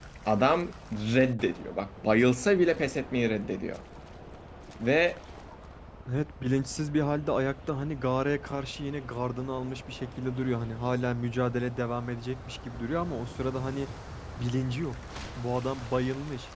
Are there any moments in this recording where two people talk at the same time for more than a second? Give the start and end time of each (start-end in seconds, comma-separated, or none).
none